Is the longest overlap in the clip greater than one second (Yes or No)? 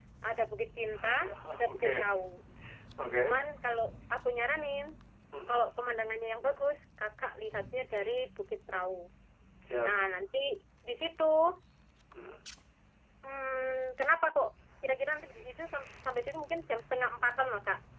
No